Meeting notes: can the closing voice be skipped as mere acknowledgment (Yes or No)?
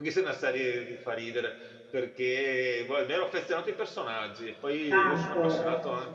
Yes